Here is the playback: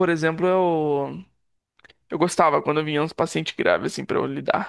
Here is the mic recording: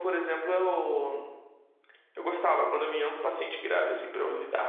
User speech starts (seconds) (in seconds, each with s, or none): none